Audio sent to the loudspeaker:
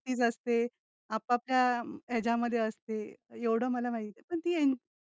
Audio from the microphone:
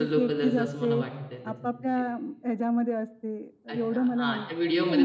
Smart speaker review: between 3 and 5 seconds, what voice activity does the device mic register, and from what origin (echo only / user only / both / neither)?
both